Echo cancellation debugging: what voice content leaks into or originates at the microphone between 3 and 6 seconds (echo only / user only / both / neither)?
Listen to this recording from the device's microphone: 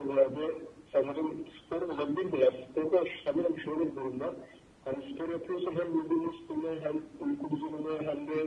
echo only